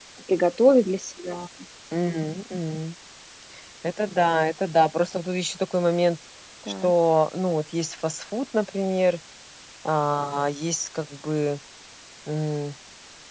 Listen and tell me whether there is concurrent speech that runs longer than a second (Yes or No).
No